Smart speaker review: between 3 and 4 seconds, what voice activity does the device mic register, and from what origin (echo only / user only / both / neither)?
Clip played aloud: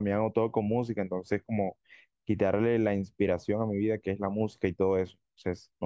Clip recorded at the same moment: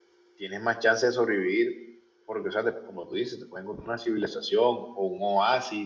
user only